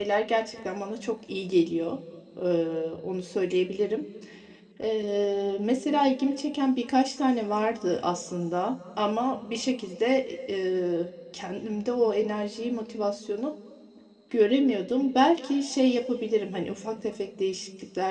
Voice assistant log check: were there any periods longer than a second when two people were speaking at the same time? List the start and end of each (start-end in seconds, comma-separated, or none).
none